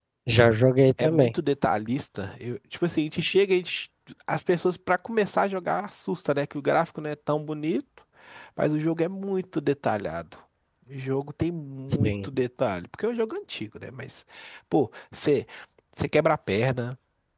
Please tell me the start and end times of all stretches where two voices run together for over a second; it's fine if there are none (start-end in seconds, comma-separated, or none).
none